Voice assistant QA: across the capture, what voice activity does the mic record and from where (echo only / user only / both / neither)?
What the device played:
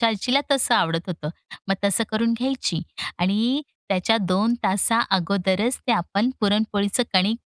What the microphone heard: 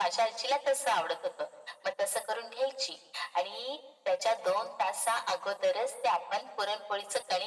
echo only